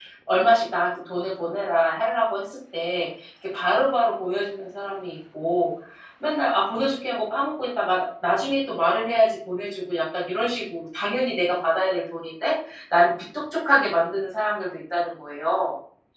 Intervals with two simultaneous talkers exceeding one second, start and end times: none

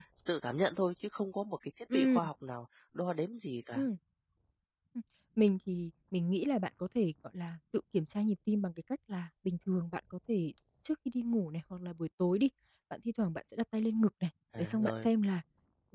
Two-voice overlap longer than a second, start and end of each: none

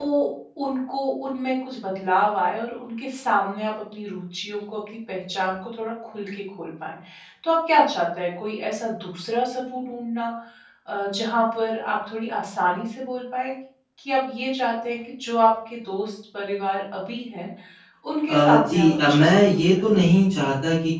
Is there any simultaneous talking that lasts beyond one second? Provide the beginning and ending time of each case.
18.3-19.6

